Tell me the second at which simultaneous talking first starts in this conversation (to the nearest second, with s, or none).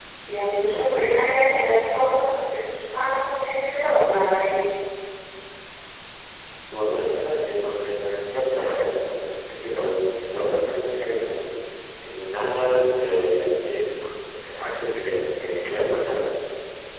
none